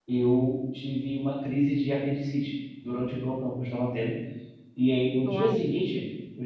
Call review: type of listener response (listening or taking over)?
listening